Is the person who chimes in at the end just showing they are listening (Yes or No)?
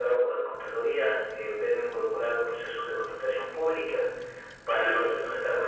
Yes